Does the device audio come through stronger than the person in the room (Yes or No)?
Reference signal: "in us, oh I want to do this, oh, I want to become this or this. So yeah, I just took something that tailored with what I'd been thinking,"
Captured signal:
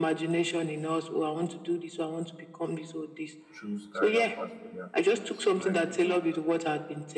Yes